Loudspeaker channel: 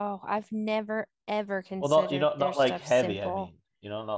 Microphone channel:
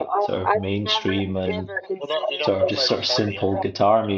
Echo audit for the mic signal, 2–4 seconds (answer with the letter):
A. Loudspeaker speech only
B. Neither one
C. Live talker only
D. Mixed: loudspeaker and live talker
D